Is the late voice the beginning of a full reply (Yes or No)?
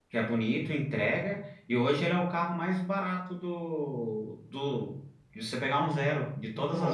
Yes